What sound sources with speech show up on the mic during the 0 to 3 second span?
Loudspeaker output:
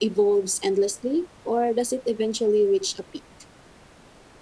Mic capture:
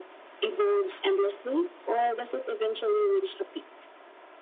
echo only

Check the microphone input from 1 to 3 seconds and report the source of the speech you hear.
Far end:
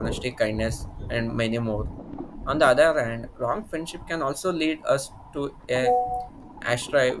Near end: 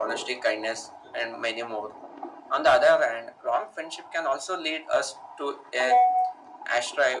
echo only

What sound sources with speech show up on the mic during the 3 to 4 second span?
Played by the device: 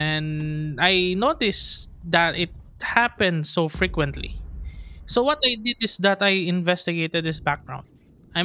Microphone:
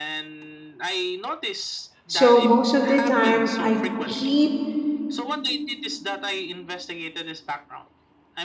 both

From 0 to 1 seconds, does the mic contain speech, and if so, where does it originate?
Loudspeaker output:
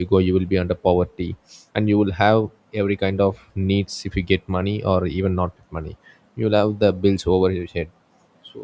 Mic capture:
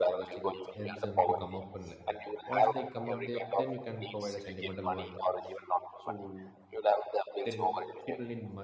both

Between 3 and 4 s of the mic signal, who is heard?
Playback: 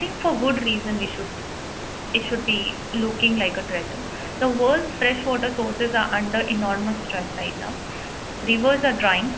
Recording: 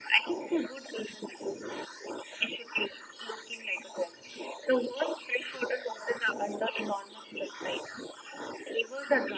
echo only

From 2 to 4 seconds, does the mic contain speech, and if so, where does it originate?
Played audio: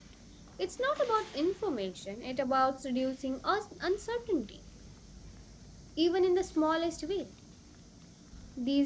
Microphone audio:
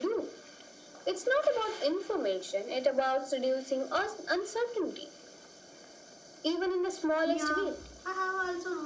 echo only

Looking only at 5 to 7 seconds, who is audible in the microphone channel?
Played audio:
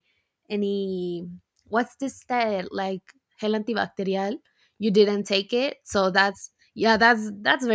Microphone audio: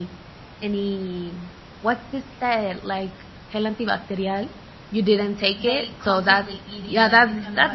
both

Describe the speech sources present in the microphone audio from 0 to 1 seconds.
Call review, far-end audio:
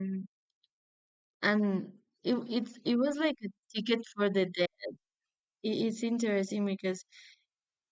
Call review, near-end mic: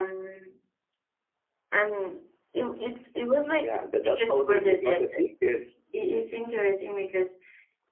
echo only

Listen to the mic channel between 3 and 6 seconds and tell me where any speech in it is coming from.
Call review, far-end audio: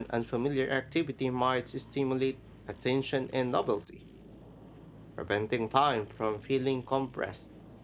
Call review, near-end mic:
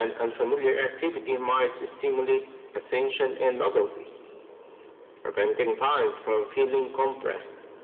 echo only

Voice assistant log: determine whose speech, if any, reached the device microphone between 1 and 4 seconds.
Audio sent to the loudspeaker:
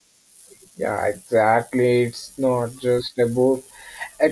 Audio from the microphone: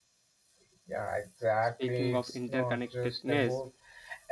both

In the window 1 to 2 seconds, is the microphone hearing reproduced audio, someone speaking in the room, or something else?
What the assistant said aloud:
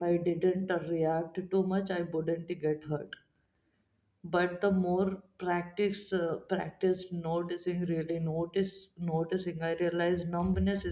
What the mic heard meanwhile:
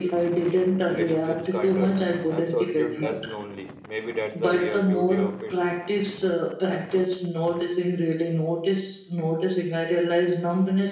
both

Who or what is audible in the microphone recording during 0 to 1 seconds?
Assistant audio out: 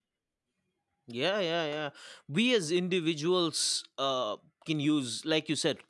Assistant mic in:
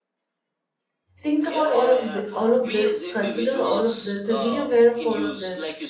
neither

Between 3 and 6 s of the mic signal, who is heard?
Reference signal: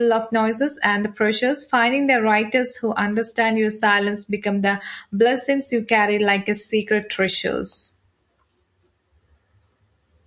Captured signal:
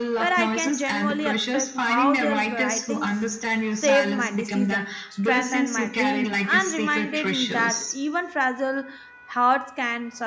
both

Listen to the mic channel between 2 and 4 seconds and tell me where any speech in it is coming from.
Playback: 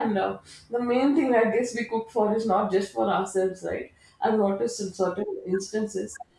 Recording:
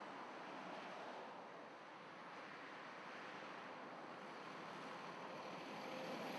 neither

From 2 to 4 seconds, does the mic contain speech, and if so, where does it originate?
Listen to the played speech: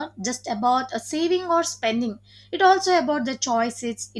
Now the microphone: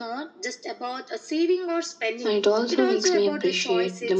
both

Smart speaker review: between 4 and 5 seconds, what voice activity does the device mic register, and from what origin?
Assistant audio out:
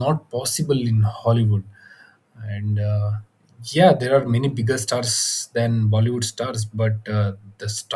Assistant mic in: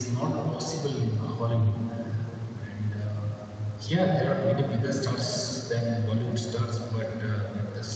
echo only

